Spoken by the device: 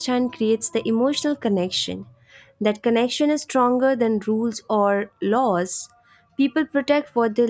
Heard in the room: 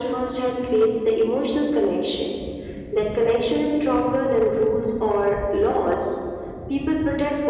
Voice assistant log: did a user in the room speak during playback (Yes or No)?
No